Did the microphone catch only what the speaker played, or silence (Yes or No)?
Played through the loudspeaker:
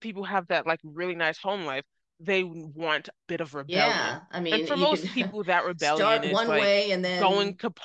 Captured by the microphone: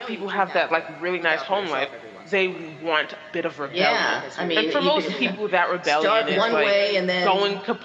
No